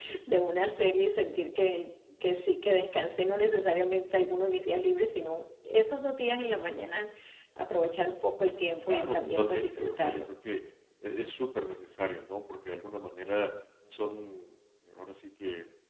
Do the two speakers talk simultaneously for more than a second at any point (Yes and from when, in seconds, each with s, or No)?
Yes, from 8.9 s